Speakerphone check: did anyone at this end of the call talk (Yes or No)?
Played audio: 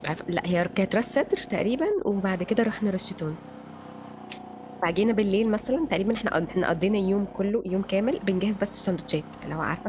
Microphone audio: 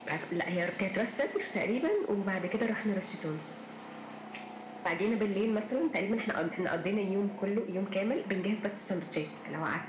No